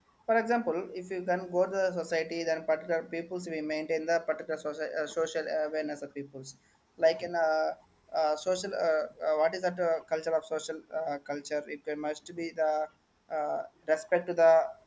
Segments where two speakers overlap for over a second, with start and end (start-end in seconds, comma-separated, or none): none